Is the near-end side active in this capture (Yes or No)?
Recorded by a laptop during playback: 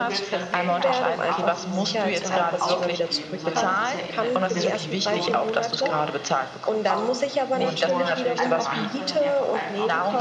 Yes